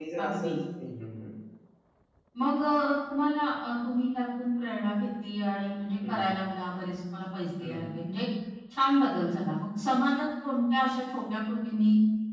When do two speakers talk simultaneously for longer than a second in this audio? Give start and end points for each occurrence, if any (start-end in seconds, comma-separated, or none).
none